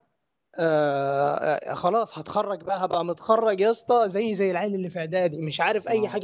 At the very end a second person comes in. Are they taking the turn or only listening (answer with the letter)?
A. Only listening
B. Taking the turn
B